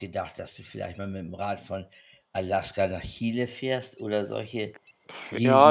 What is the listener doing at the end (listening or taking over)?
taking over